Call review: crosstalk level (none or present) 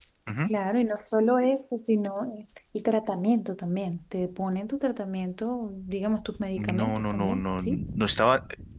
present